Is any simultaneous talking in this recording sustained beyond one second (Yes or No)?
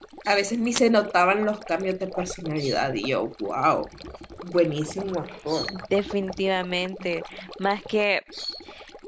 No